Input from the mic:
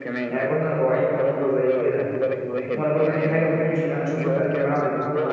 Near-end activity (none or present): present